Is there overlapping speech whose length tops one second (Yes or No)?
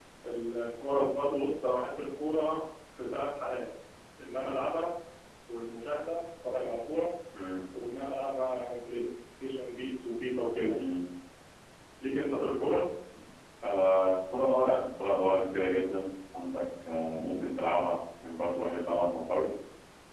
No